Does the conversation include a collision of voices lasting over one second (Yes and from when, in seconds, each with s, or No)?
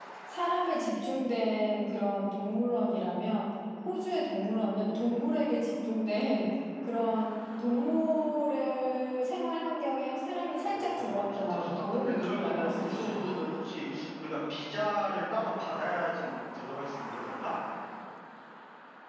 Yes, from 10.6 s